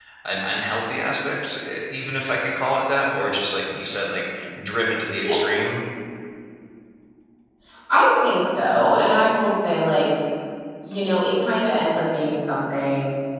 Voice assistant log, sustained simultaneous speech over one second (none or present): none